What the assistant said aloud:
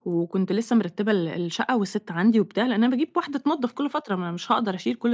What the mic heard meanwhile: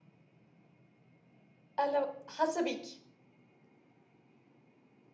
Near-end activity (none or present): present